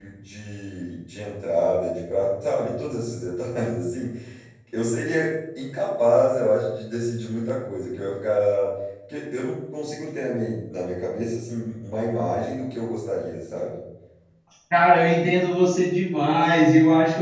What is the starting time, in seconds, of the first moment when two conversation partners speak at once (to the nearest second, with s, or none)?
none